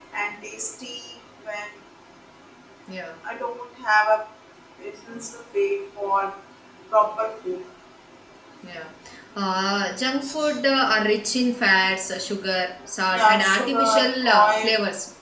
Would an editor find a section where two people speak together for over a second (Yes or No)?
Yes